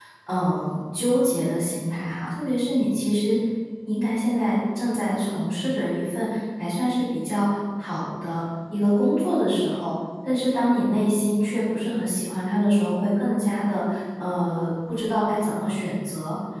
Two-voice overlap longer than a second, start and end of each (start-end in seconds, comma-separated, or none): none